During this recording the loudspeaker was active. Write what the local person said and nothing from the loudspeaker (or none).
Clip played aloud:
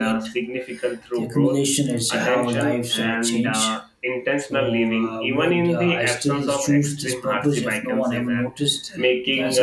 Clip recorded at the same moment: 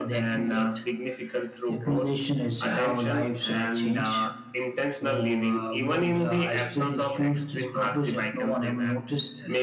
none